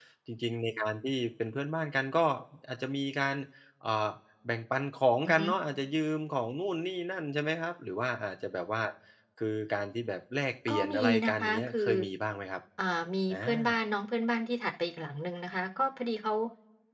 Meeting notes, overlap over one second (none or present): present